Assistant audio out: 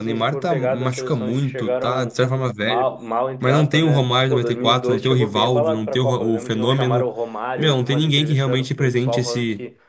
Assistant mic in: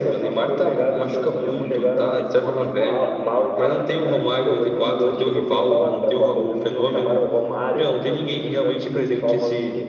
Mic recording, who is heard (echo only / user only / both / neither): both